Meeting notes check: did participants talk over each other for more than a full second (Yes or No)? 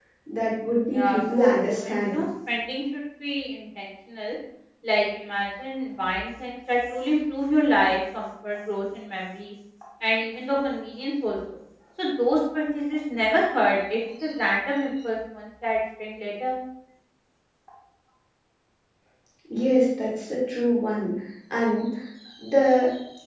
Yes